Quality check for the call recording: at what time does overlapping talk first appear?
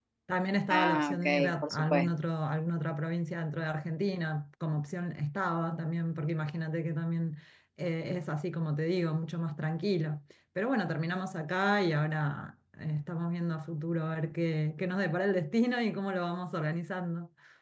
1 s

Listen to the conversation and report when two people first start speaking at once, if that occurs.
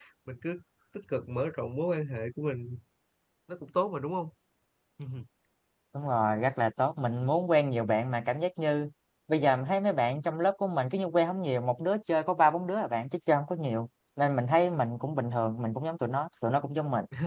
none

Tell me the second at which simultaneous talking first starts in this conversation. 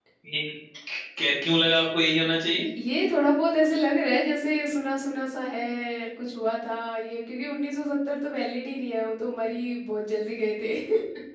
none

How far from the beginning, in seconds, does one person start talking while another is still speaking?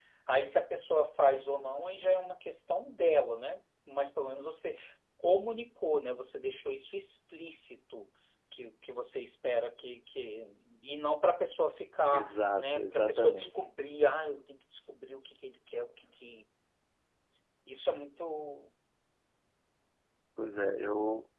12 s

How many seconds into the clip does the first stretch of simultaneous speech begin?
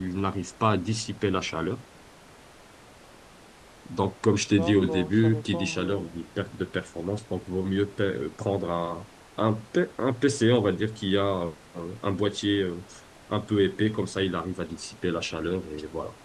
5 s

